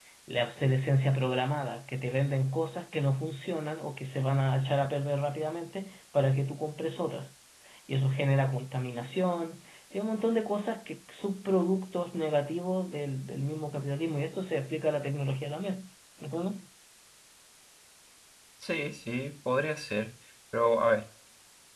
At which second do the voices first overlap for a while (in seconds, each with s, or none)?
none